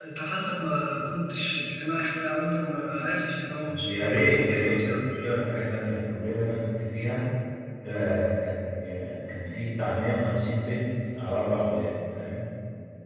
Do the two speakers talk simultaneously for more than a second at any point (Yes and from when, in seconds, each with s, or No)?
Yes, from 3.7 s